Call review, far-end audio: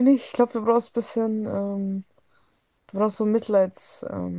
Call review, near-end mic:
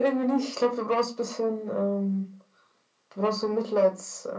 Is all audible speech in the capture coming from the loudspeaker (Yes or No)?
Yes